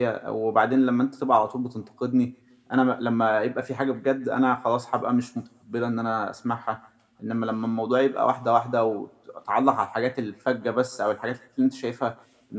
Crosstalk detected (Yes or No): No